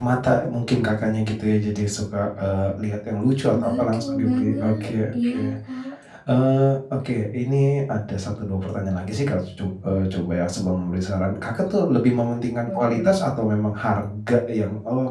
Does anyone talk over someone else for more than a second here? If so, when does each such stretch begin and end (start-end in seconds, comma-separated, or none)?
3.5-5.4